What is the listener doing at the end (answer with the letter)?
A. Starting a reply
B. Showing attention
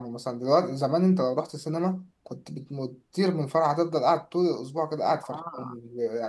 B